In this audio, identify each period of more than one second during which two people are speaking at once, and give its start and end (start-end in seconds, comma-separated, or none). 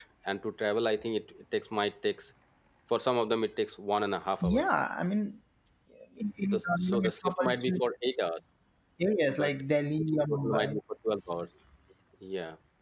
6.5-7.8